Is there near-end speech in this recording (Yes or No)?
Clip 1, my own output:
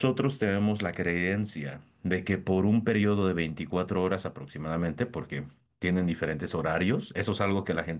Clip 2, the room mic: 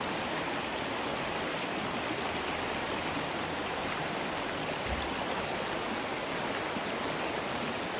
No